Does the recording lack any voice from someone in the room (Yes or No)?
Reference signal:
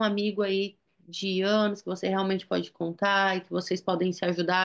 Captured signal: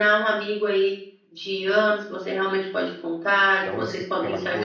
No